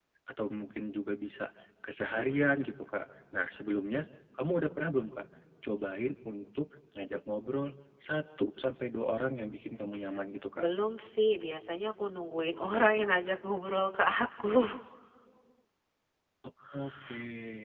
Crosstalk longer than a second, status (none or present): none